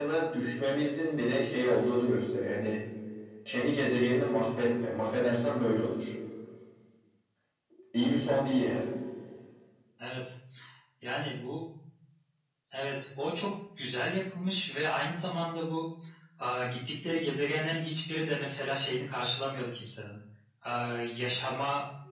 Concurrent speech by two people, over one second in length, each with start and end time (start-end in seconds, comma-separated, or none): none